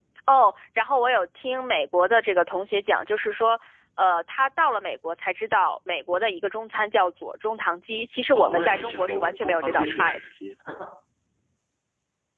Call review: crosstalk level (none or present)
present